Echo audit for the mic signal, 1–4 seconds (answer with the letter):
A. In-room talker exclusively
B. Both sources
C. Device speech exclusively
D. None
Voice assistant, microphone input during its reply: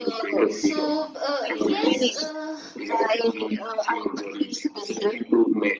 B